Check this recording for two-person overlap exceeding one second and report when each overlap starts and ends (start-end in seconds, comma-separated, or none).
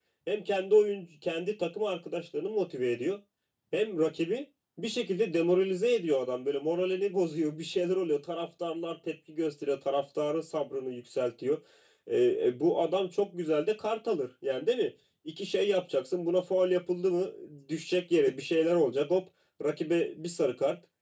none